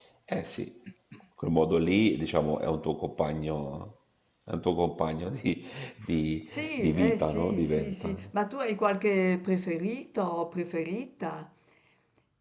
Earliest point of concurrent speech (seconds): 6.5 s

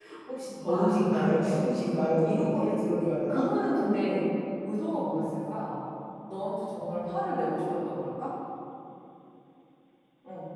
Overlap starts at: 0.7 s

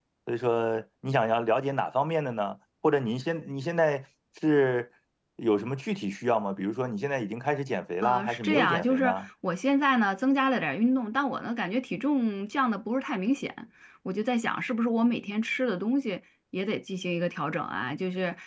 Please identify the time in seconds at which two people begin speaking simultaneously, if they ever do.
8.0 s

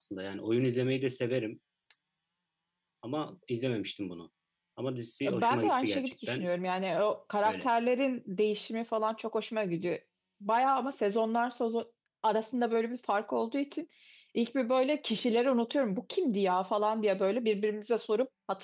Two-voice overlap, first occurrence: 5.2 s

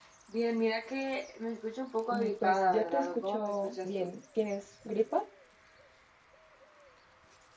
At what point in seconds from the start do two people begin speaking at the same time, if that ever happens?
2.1 s

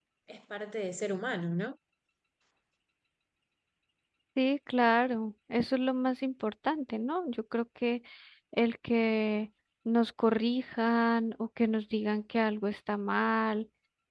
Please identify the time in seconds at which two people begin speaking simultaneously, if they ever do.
none

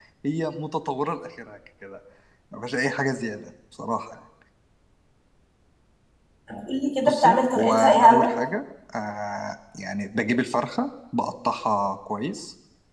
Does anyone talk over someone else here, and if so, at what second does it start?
7.1 s

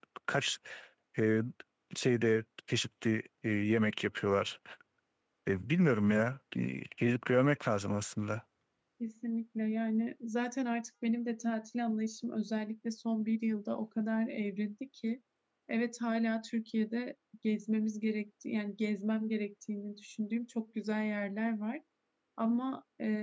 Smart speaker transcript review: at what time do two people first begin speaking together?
none

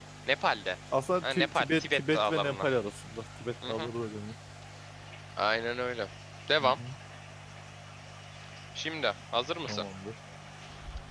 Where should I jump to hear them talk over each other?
1.2 s

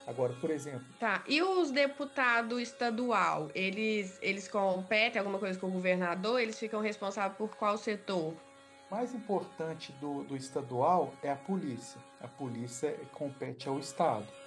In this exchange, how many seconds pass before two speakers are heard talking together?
none

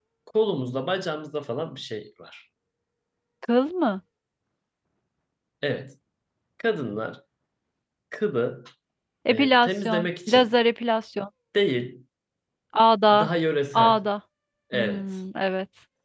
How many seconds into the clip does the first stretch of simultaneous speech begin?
9.3 s

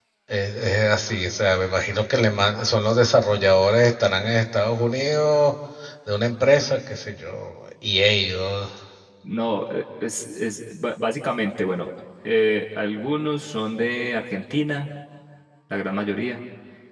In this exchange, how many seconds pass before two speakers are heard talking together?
none

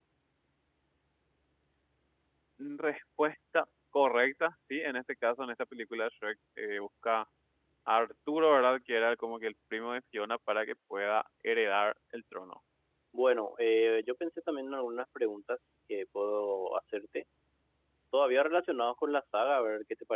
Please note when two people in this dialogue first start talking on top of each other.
none

